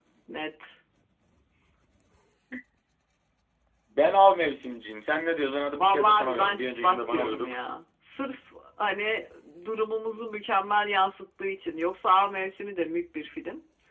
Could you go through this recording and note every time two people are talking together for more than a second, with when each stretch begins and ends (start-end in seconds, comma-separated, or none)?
5.7-7.6